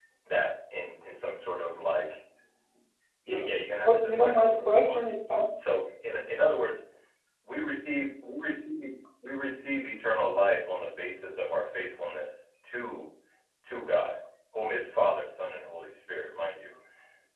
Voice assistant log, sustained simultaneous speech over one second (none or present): present